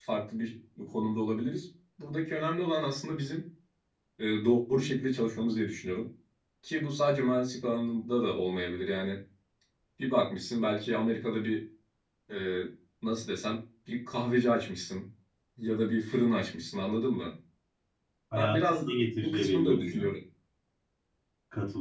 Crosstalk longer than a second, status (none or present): present